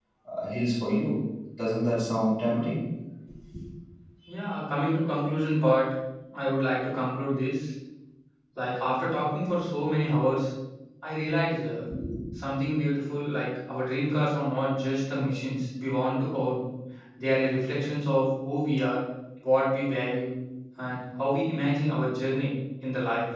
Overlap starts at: none

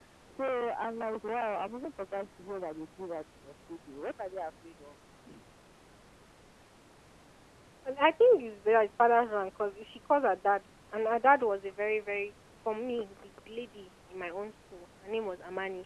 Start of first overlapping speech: none

